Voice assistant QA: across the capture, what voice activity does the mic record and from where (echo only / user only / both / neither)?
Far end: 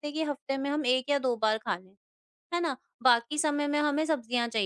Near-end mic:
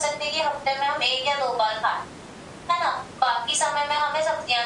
echo only